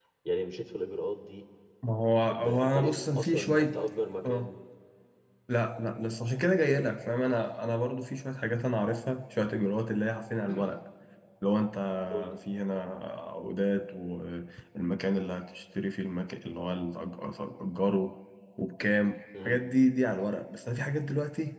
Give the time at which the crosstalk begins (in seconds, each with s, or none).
2.3 s